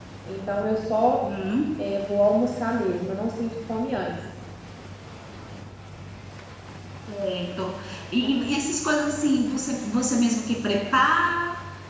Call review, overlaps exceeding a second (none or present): none